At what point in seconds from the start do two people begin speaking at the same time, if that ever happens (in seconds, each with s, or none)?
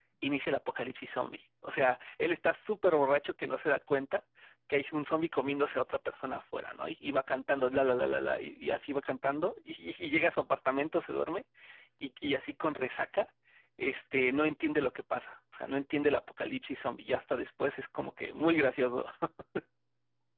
none